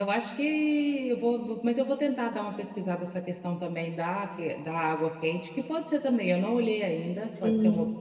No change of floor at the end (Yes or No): No